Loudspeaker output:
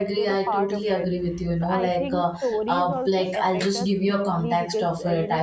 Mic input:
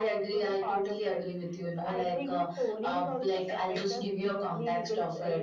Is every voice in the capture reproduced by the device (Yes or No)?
Yes